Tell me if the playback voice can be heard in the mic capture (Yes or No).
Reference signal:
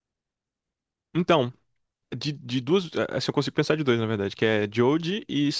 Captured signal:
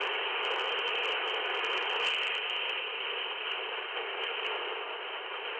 No